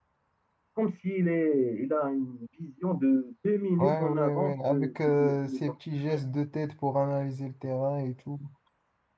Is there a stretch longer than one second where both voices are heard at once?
Yes, from 3.8 s

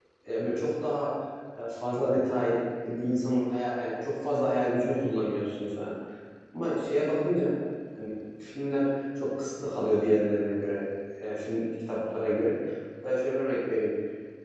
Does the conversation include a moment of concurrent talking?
No

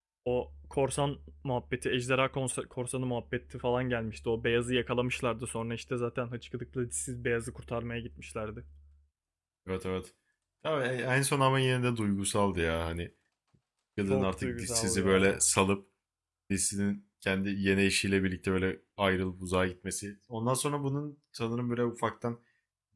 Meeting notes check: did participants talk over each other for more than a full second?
Yes, from 14.1 s

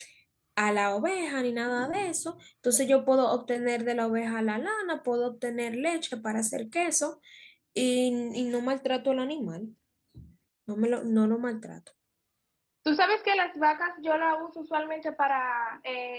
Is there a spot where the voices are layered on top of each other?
No

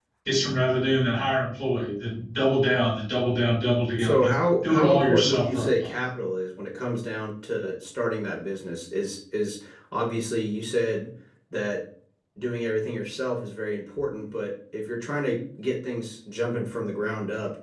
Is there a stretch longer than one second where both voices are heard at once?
Yes, from 4.0 s

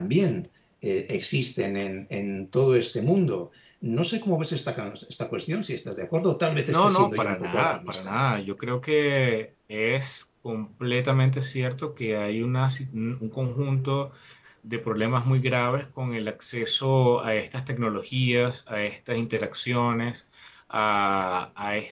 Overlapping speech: Yes, from 6.6 s

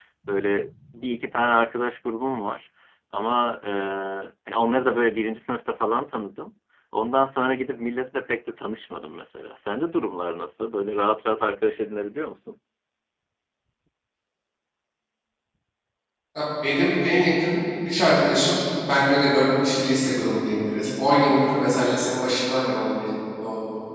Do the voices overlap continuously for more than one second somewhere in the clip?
No

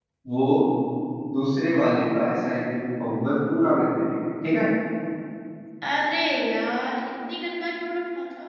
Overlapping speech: No

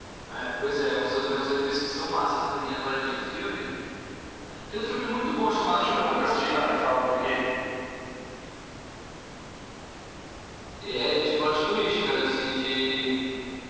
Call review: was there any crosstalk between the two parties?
Yes, from 5.7 s

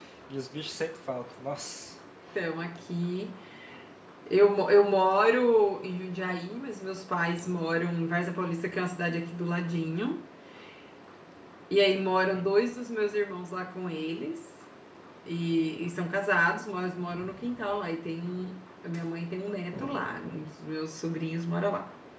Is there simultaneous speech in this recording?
No

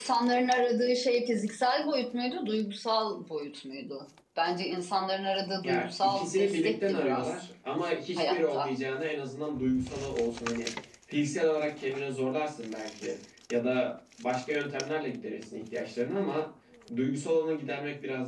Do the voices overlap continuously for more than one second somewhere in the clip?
Yes, from 5.6 s

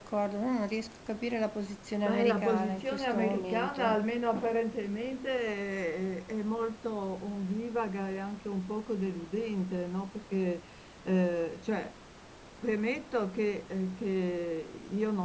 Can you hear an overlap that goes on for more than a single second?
Yes, from 2.0 s

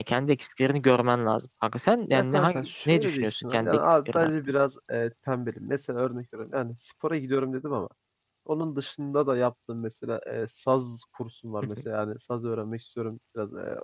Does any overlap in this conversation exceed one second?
Yes, from 2.1 s

